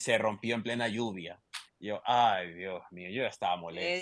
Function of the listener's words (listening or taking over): taking over